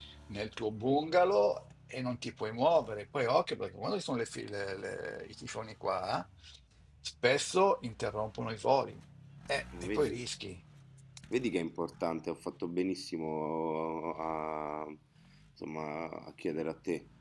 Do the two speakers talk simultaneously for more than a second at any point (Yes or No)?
No